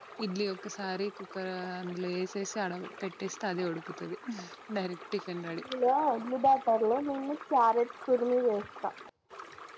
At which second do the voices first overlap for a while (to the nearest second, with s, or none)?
none